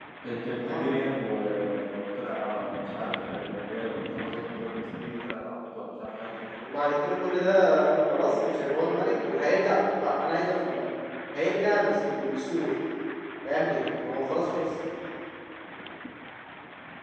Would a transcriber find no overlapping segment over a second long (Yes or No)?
Yes